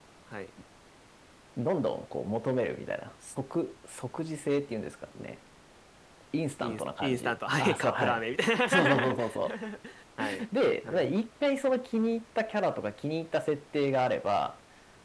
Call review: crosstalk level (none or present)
present